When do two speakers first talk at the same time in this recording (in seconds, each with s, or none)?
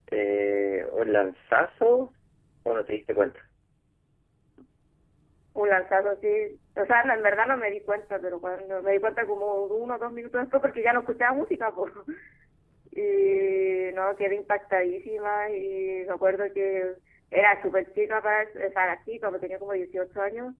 none